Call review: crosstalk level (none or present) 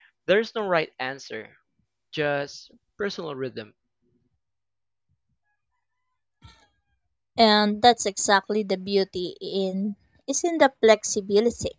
none